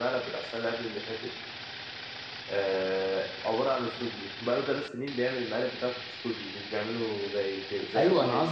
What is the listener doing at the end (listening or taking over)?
taking over